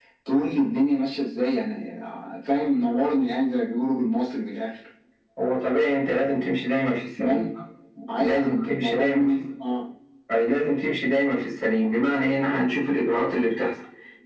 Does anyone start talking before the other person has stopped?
Yes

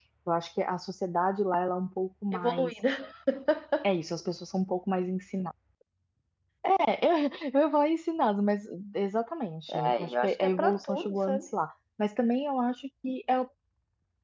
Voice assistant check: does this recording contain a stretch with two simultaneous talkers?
Yes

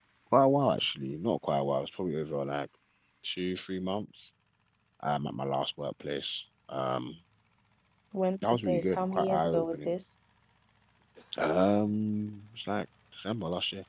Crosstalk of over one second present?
Yes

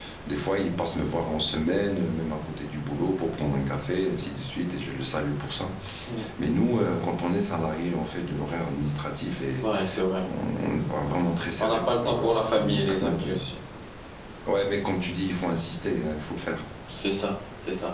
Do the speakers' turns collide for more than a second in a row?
Yes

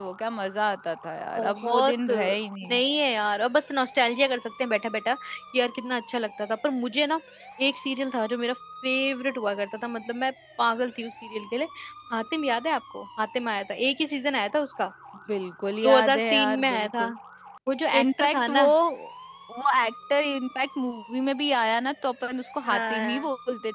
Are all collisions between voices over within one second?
No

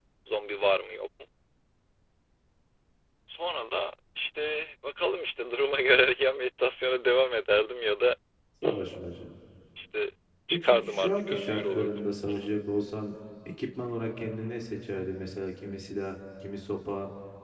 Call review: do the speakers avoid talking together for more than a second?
No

